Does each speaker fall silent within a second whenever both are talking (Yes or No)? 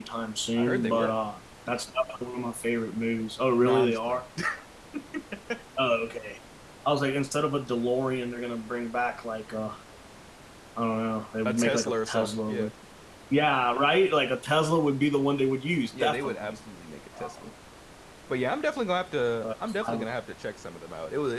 No